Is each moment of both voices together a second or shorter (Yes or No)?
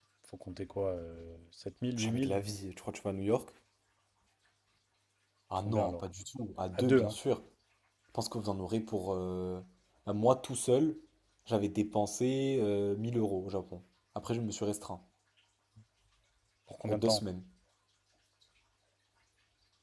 Yes